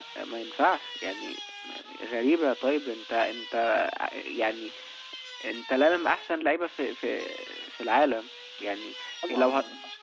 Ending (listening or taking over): listening